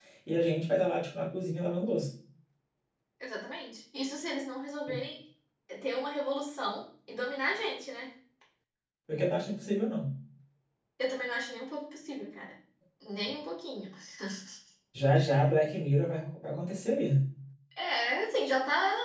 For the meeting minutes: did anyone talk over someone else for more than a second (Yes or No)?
No